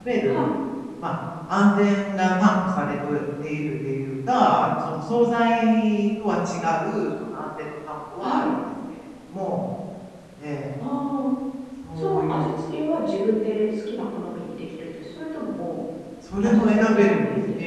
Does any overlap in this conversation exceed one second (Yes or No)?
Yes